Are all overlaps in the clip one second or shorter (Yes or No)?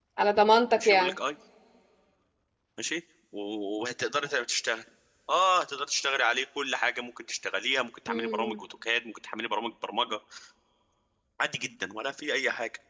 Yes